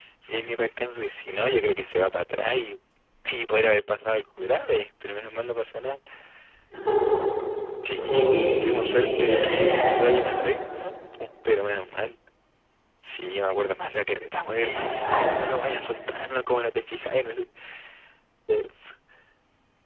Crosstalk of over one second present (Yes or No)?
Yes